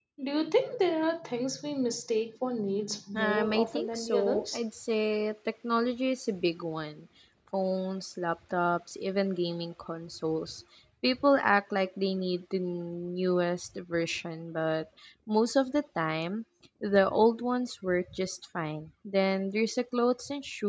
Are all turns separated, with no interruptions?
No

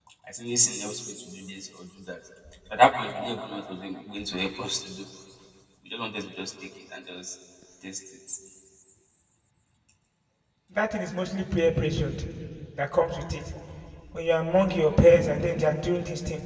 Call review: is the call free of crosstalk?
Yes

